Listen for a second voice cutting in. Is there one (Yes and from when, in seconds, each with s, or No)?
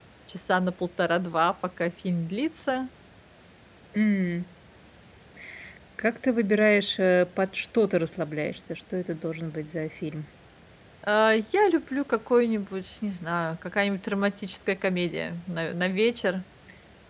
No